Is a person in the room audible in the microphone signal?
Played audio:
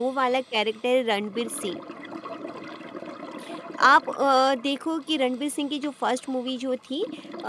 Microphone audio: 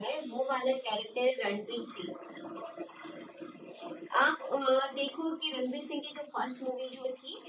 No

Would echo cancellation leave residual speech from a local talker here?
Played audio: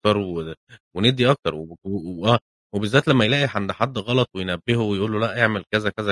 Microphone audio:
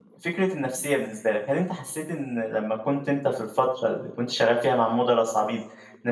Yes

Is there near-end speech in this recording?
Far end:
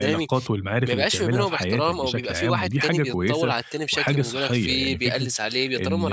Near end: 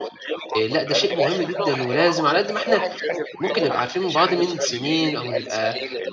Yes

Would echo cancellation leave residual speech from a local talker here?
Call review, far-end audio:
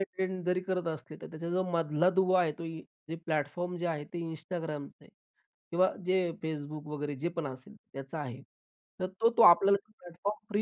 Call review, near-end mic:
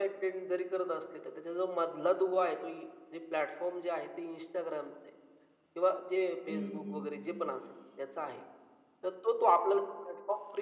Yes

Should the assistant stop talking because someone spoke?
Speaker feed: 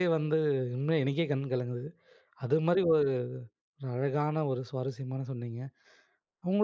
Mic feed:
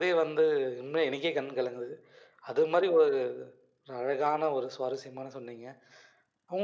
No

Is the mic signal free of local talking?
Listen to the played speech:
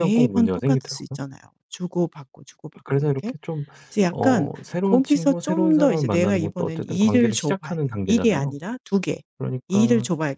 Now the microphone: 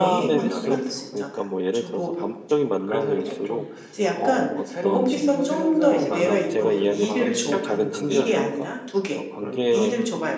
No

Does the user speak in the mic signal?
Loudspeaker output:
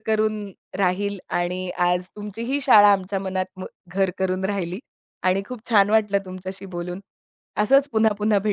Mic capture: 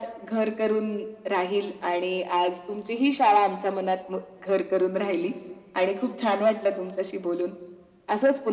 No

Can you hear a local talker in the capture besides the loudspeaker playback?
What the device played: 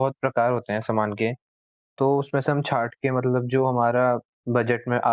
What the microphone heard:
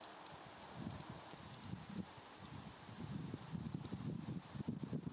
No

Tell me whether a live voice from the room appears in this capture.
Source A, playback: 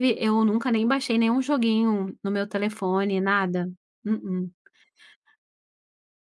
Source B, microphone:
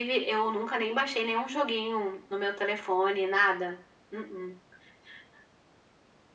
No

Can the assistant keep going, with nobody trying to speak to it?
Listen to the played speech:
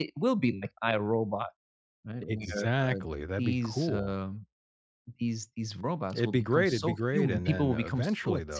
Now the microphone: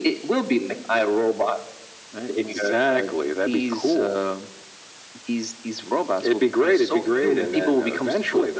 Yes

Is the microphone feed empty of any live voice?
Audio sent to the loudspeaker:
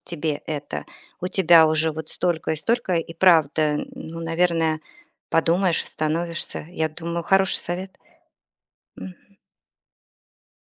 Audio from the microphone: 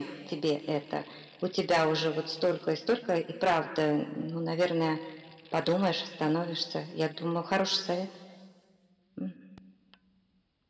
Yes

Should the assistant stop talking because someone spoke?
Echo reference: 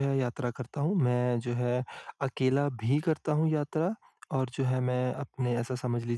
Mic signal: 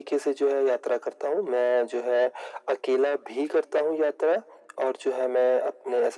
No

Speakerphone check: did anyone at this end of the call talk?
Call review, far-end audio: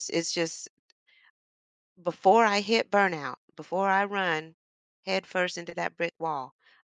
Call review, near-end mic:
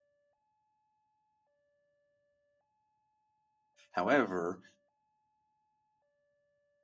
Yes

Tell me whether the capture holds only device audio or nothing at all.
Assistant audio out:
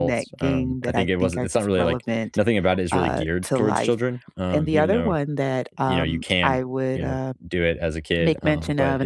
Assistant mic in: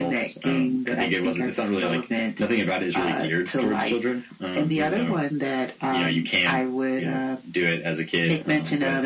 Yes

